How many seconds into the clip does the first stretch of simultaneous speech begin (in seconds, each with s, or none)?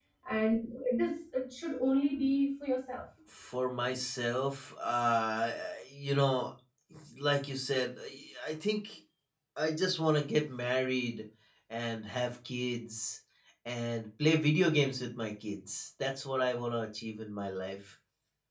none